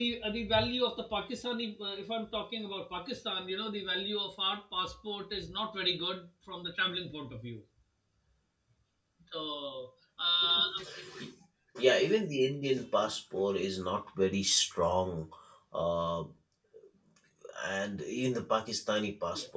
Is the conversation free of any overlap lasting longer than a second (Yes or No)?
Yes